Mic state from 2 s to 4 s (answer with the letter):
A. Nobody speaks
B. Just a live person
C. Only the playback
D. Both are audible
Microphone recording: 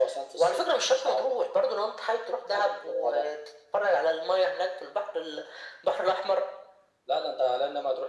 C